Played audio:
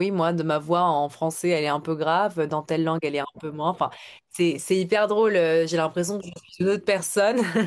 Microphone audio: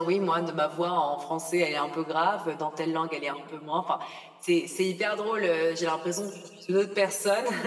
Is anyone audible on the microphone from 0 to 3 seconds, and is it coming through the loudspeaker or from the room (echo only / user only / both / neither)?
echo only